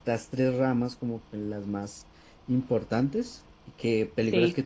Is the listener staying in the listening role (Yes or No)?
Yes